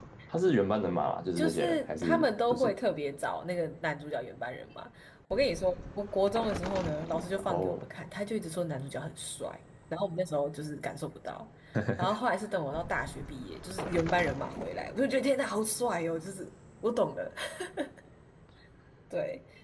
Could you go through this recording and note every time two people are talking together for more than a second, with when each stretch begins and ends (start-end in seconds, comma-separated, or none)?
1.4-2.7